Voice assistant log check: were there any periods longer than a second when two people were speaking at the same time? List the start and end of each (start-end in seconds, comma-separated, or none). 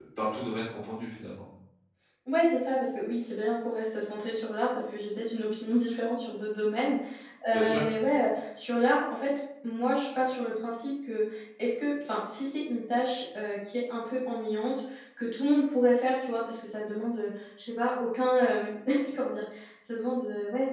none